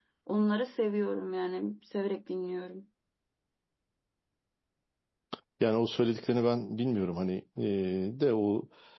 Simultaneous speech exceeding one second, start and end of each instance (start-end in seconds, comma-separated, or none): none